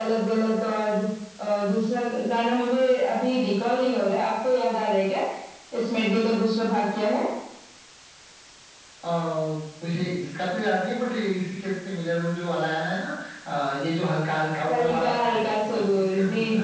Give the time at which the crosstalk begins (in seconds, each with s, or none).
14.7 s